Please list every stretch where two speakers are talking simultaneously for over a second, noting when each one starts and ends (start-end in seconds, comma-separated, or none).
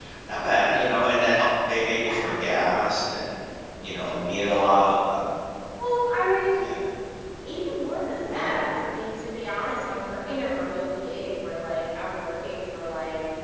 none